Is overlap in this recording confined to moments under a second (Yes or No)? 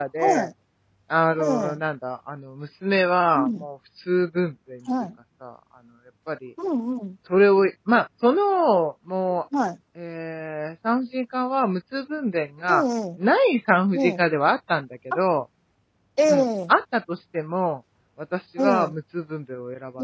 Yes